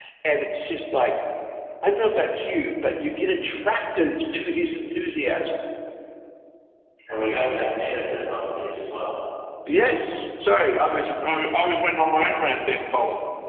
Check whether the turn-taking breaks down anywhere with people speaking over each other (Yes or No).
No